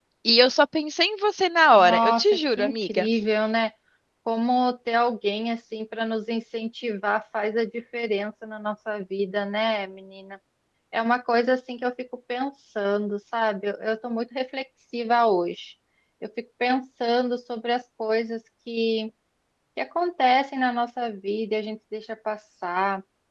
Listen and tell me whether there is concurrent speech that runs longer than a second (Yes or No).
Yes